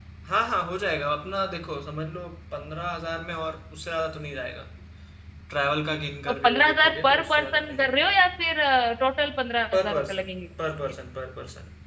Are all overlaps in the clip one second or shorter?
No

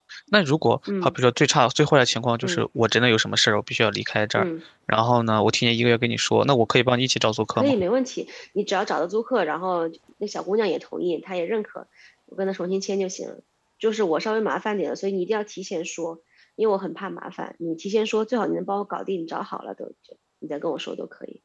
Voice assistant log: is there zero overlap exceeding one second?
Yes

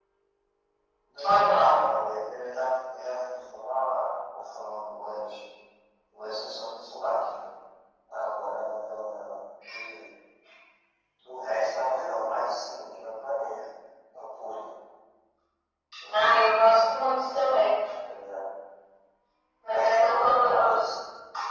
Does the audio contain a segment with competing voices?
Yes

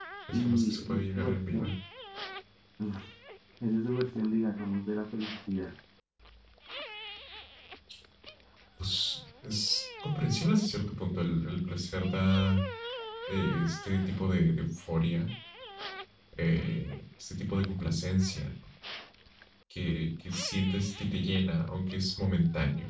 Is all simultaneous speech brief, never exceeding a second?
No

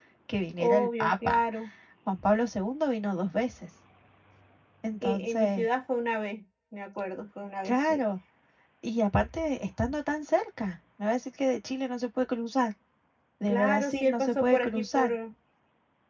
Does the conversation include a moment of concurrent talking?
Yes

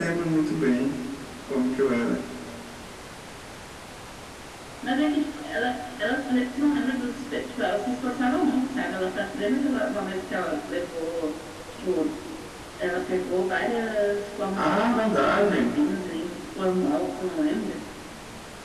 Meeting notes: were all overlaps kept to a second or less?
No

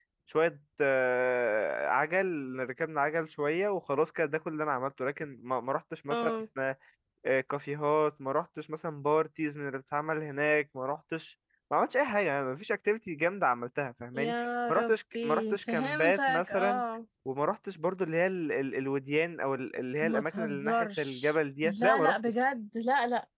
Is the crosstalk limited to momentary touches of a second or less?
No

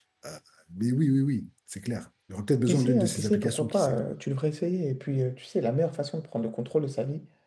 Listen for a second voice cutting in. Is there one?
Yes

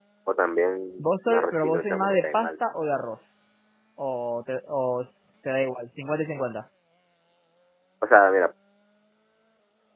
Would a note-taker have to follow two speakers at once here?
Yes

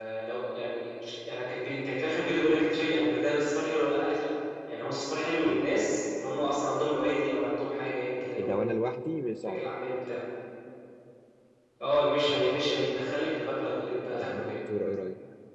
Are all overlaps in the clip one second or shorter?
Yes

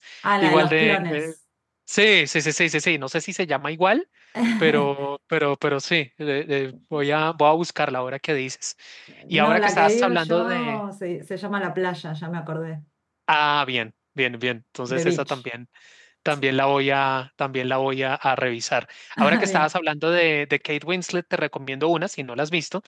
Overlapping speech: Yes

